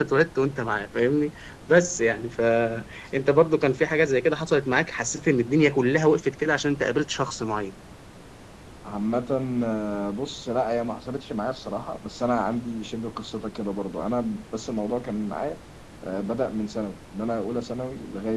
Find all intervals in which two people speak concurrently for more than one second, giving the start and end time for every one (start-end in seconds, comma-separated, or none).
none